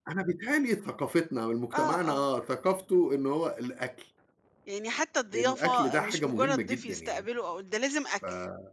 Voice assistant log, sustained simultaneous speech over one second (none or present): present